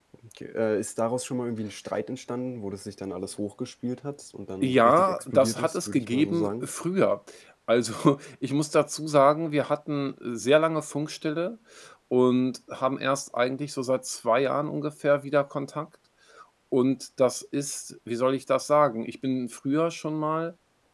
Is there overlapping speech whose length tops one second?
Yes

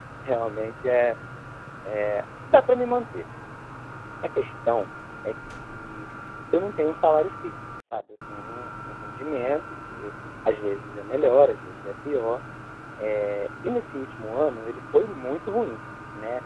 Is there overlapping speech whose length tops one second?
No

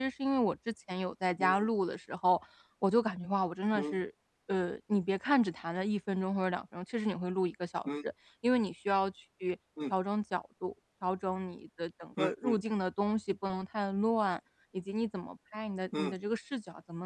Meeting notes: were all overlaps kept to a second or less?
Yes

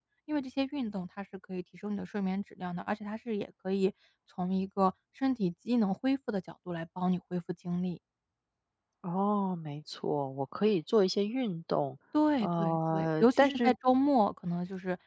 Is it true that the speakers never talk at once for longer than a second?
No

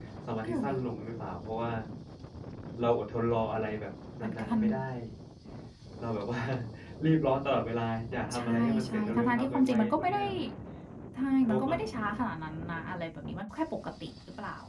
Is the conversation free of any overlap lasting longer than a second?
No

